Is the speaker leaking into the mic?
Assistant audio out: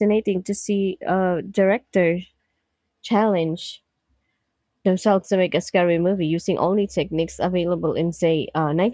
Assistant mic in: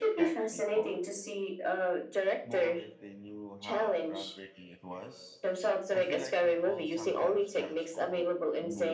Yes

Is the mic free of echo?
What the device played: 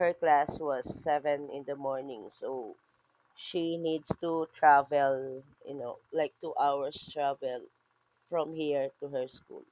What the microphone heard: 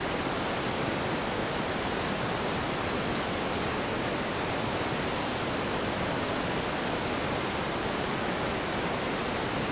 Yes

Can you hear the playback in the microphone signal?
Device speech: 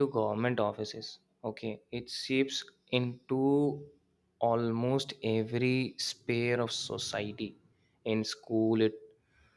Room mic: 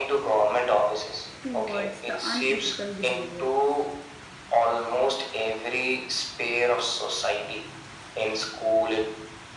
Yes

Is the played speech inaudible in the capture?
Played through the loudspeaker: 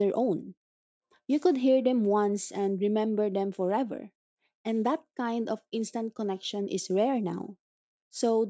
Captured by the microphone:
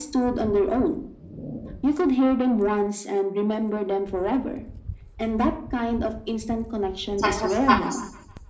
No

